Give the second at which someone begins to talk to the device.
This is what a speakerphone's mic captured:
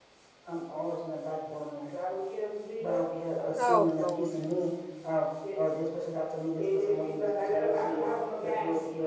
3.6 s

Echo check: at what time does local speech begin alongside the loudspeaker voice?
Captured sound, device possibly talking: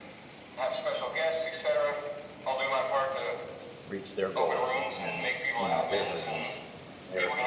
3.8 s

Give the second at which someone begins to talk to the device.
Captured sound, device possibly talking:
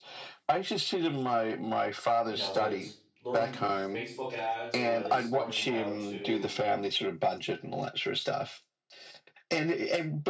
2.3 s

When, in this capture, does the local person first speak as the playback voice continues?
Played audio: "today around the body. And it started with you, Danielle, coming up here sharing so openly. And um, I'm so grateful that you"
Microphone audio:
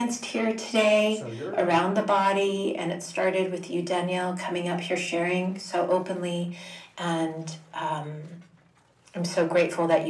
1.1 s

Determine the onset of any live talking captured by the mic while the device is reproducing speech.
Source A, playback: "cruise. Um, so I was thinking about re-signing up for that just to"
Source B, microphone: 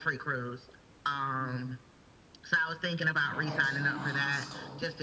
3.1 s

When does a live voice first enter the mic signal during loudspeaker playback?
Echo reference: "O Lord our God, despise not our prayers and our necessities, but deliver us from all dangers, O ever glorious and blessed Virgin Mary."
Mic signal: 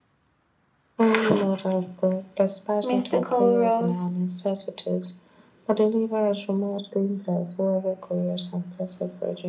2.8 s

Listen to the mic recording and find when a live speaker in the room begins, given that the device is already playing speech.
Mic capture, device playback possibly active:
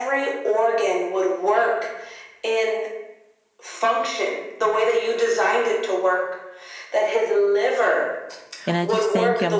8.7 s

